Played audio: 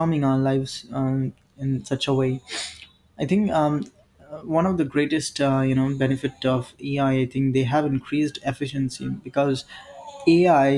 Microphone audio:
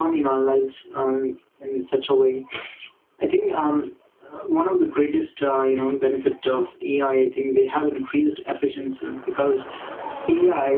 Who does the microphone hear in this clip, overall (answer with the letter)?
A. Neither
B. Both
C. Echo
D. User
C